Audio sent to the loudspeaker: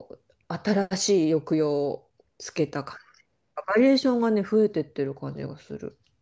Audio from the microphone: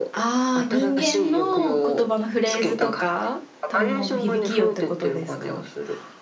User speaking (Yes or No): Yes